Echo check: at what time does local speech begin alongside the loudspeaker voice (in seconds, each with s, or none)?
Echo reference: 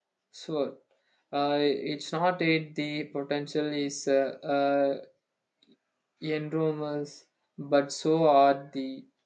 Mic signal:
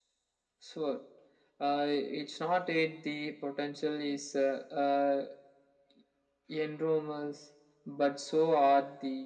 none